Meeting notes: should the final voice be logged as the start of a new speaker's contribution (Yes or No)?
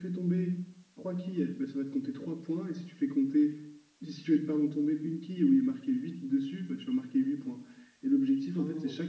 No